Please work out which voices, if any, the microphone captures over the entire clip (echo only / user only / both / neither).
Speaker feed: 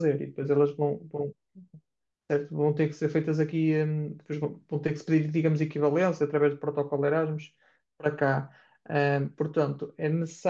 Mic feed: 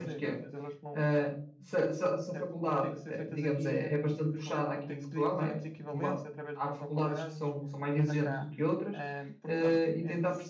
both